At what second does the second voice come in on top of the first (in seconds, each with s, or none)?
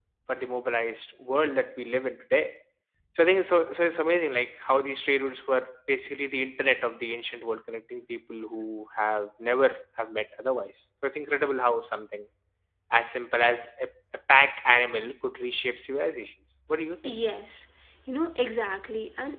none